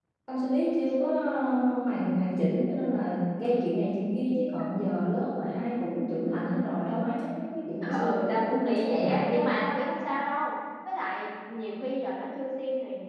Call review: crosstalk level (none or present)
present